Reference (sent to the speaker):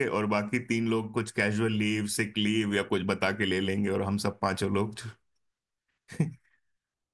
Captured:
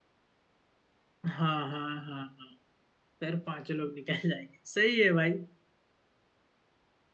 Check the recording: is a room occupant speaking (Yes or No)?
Yes